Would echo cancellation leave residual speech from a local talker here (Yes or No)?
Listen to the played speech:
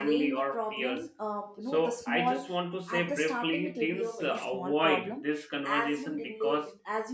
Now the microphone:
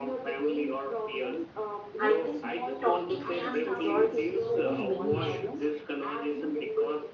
Yes